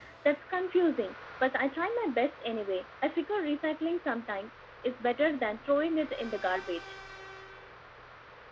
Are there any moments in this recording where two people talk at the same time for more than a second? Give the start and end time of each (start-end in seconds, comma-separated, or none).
none